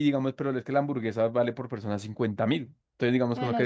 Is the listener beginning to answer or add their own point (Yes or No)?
No